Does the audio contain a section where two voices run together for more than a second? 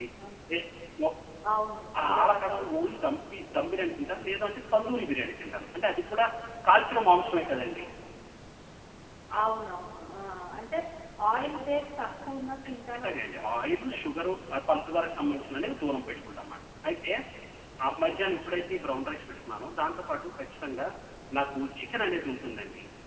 Yes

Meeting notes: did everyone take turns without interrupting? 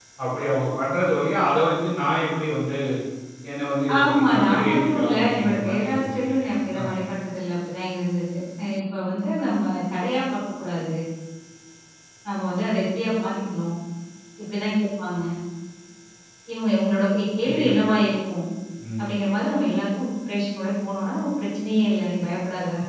No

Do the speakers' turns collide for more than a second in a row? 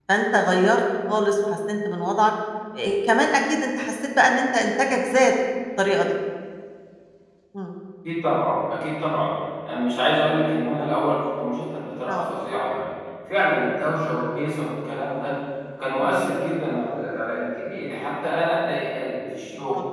No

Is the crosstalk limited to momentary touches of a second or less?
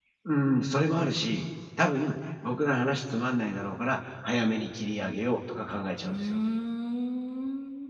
Yes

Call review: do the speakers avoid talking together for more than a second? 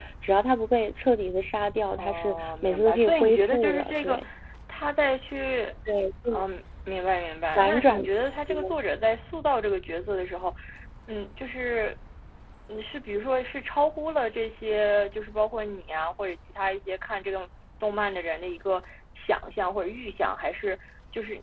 No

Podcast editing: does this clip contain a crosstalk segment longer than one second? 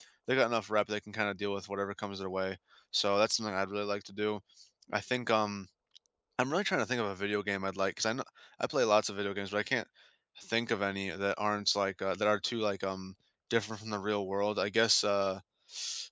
No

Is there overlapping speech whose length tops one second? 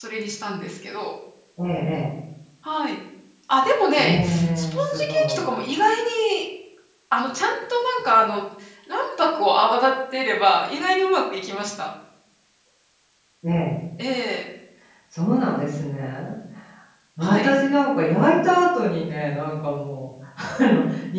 Yes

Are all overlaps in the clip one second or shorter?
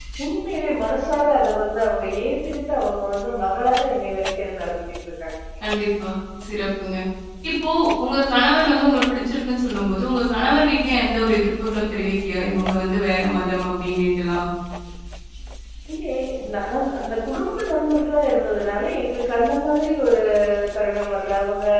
Yes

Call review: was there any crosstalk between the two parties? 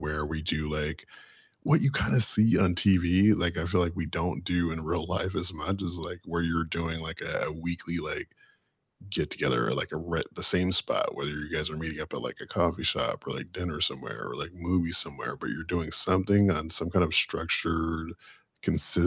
No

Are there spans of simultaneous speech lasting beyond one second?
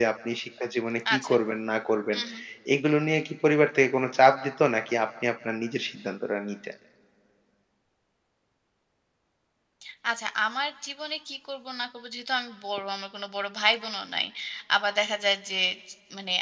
No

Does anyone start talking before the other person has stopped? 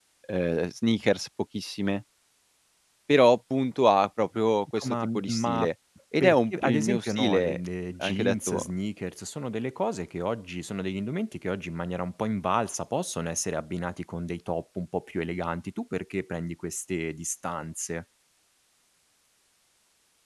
Yes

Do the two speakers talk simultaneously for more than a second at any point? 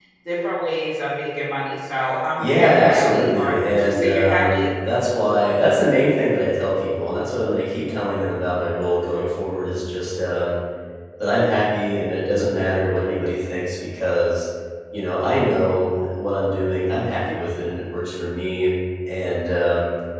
Yes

